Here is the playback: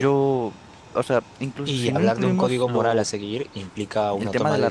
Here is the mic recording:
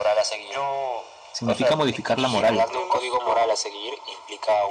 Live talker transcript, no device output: significa modificar la moral.

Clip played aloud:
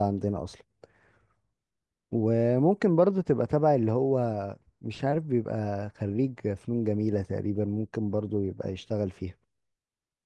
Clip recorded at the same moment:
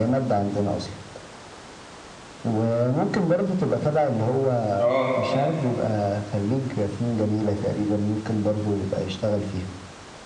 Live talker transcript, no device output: اه تمام

